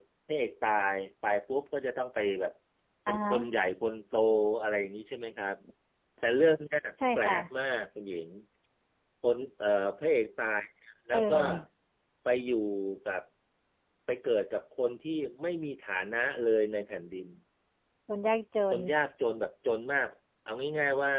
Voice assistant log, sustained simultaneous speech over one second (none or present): none